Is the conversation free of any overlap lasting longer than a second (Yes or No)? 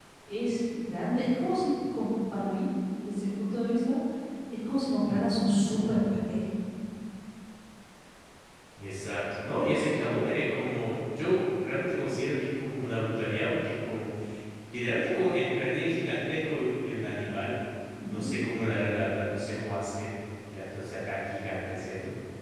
Yes